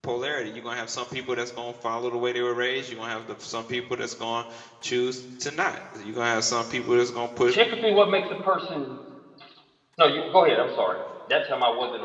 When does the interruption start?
none

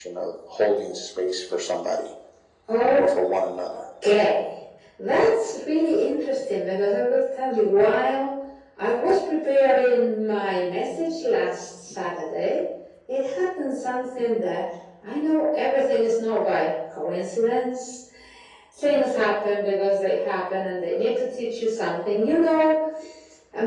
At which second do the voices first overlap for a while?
none

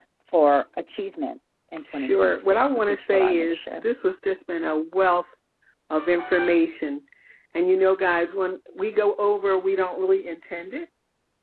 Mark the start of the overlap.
1.9 s

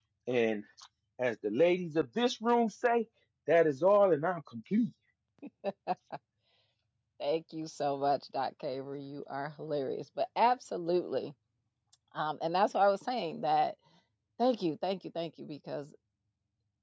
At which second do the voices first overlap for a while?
none

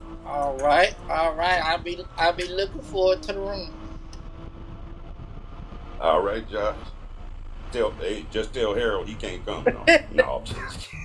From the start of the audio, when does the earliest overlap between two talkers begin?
none

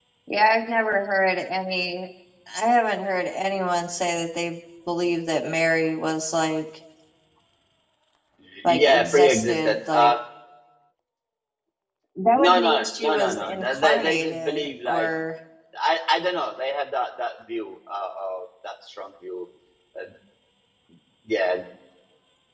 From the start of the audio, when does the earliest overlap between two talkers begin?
8.6 s

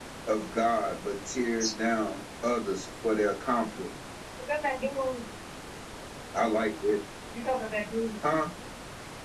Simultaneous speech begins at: none

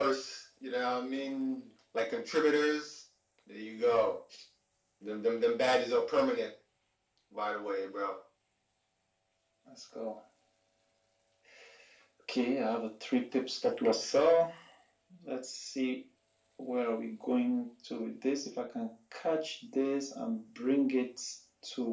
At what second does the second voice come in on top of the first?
none

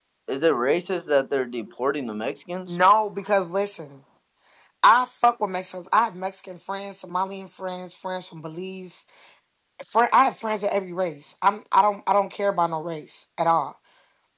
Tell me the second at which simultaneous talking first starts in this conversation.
none

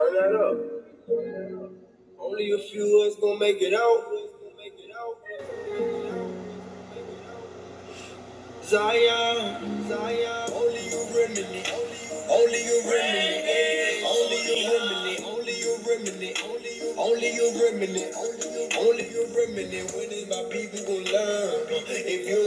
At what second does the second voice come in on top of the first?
none

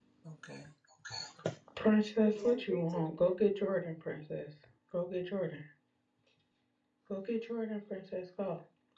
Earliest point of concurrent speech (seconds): 2.2 s

